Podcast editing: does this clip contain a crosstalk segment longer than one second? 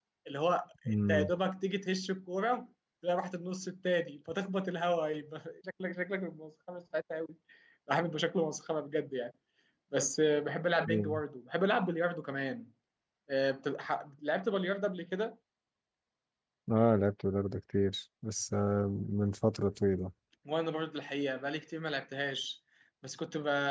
No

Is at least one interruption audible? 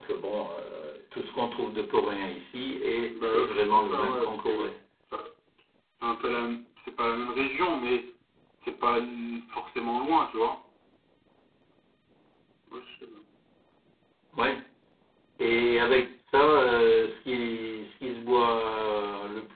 Yes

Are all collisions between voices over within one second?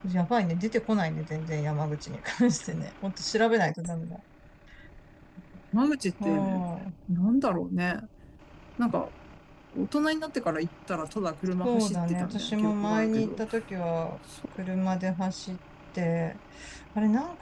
No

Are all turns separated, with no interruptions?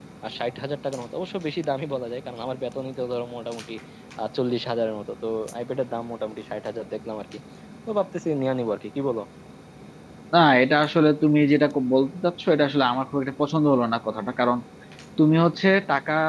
Yes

